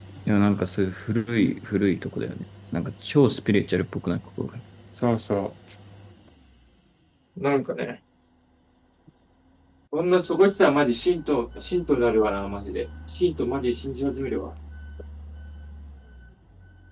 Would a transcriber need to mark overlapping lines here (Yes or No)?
No